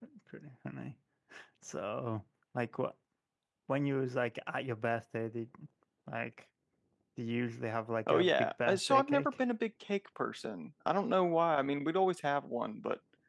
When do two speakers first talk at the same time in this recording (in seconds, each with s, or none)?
8.1 s